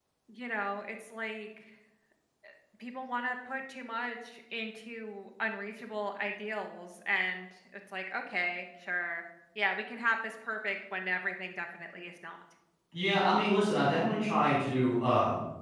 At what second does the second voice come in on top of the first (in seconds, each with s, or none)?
none